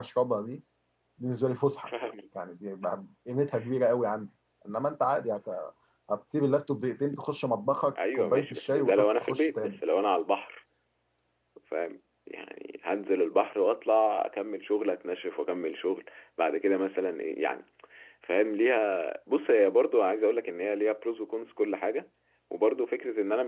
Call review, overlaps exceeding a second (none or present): present